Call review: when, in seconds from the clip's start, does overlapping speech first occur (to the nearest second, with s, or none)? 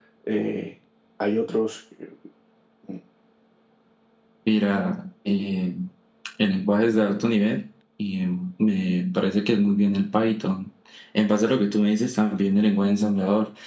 none